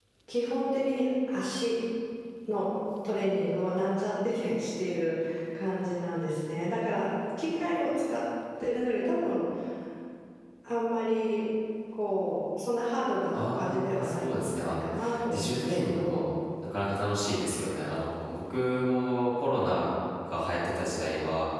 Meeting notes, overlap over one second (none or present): present